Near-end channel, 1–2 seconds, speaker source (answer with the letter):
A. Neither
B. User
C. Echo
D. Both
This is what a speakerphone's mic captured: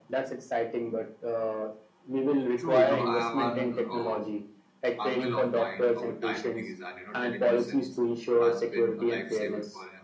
C